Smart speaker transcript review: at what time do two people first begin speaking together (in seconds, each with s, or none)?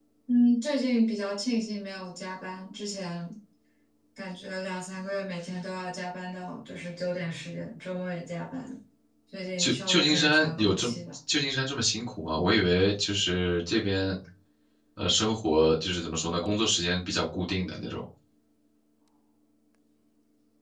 9.6 s